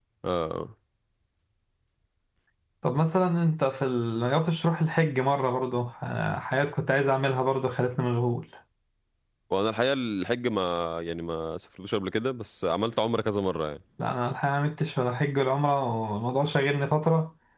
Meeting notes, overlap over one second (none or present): none